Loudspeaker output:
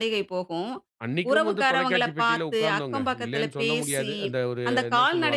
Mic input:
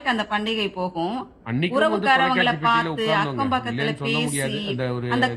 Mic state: echo only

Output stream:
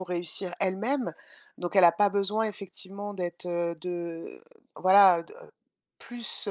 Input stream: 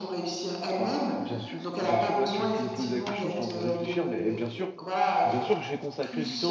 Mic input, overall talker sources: both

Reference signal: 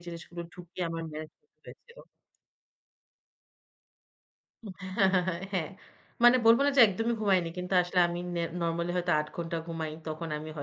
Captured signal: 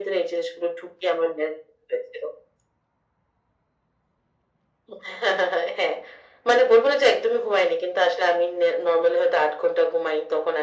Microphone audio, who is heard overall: echo only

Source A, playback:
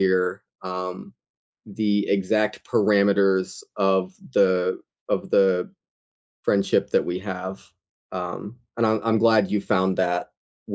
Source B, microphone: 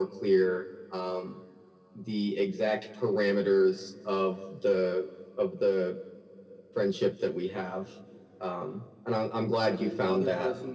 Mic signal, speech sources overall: both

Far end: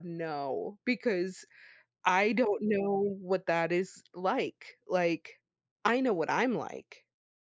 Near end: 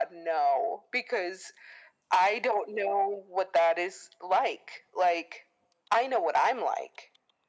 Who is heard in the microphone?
echo only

